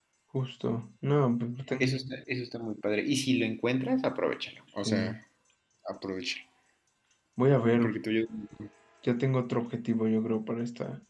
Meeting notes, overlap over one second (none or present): none